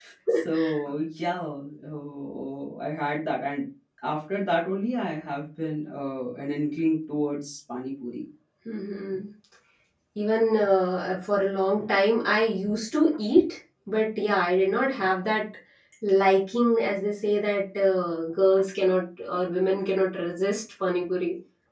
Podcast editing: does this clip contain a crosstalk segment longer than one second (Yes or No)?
No